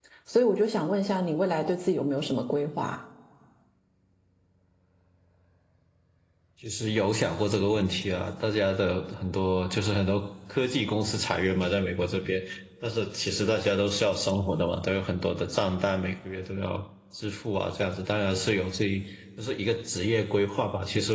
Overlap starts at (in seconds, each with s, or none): none